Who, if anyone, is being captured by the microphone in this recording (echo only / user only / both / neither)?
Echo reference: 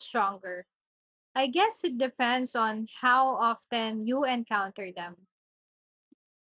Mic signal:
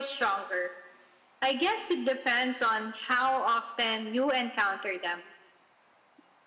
echo only